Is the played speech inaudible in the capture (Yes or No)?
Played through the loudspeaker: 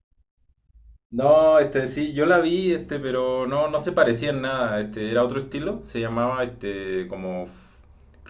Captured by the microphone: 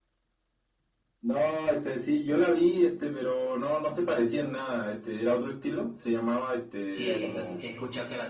No